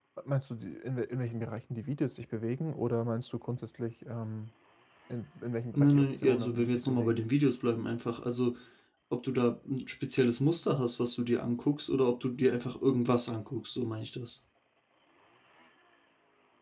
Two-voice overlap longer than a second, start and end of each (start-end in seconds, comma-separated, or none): 5.8-7.2